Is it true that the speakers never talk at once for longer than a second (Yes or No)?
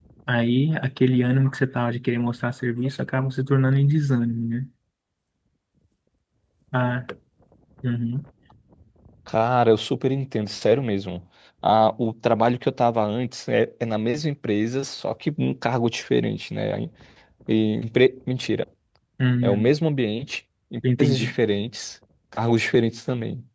Yes